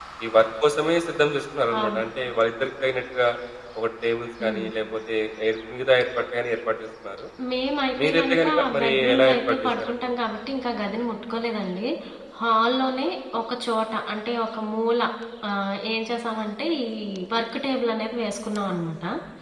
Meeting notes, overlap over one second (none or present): present